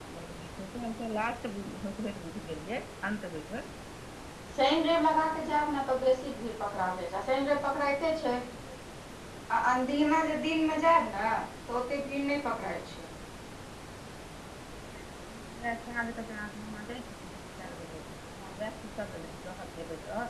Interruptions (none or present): none